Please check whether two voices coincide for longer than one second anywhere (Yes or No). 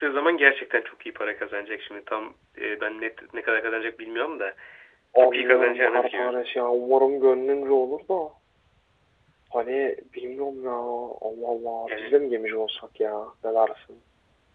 Yes